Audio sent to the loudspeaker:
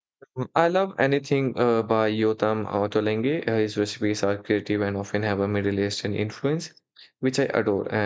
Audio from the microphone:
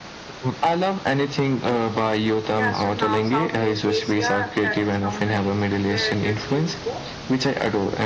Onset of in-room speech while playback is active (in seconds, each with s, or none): 2.6 s